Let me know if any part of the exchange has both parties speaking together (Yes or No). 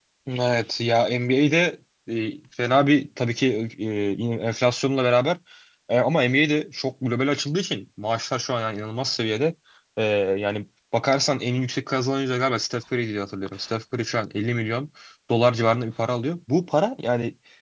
No